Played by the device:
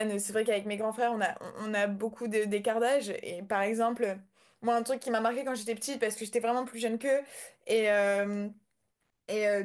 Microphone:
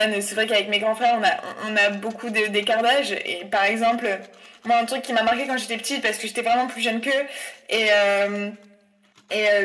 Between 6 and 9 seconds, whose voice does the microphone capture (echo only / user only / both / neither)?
echo only